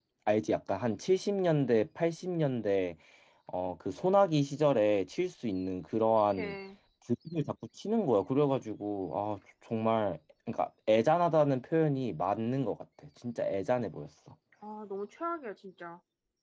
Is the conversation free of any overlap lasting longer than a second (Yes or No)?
Yes